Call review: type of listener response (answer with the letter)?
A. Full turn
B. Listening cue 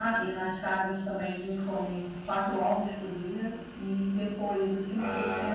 B